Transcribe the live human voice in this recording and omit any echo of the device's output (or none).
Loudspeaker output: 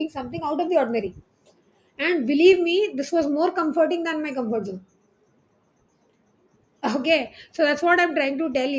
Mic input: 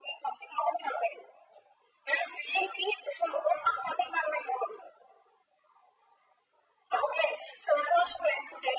none